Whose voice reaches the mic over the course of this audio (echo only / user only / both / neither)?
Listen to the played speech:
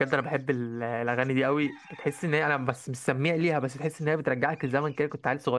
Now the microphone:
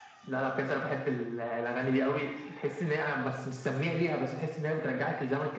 echo only